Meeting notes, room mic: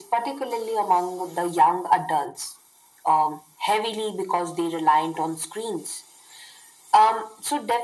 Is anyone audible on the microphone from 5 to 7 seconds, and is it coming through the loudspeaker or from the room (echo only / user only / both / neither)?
echo only